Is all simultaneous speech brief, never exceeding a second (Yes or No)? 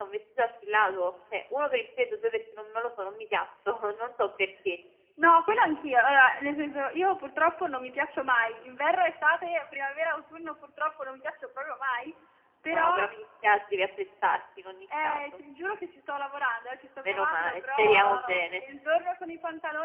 No